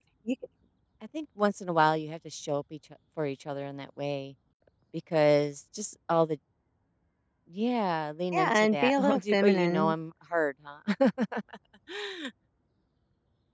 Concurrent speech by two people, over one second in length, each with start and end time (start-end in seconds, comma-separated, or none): 8.3-9.9